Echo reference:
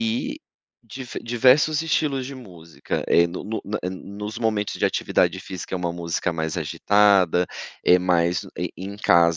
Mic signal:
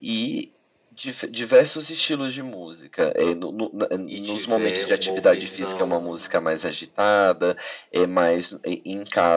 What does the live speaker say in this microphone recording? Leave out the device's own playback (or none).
e tiver uma opção